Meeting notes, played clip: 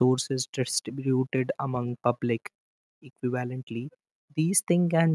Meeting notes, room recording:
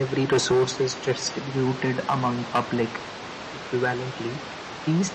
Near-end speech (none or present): none